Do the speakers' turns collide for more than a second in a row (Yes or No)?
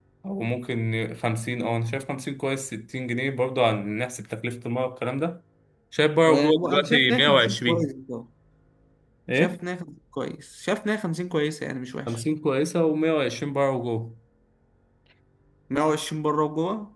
Yes